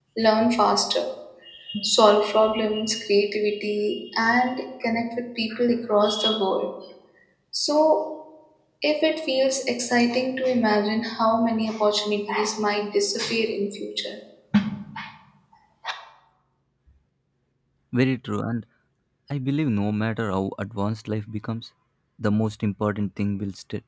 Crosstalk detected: No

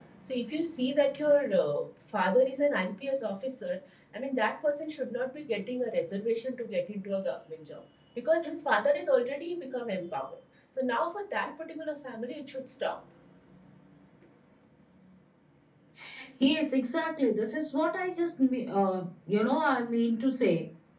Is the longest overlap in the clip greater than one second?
No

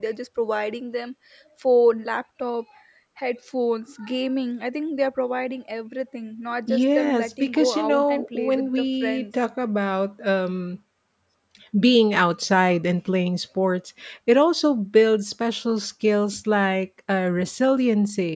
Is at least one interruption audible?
Yes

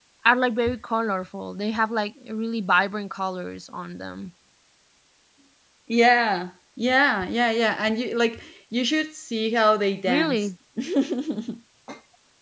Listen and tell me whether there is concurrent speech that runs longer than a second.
No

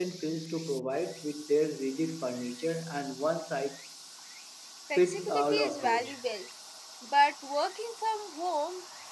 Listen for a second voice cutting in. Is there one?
Yes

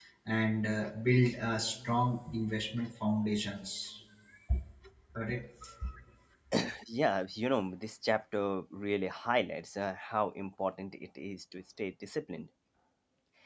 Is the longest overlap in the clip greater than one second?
No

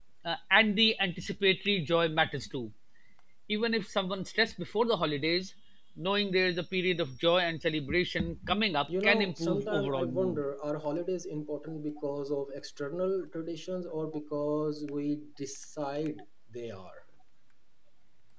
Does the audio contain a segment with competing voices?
Yes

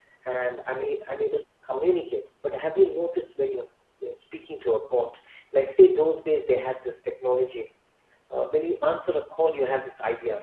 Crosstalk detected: No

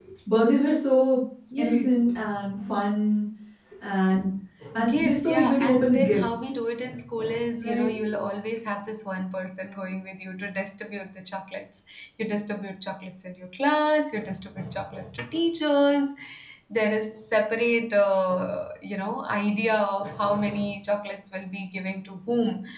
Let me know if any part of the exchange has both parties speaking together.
Yes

